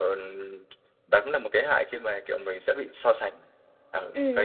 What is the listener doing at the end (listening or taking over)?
taking over